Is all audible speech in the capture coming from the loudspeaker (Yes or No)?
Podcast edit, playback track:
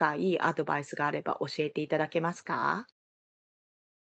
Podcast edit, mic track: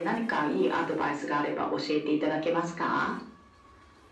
Yes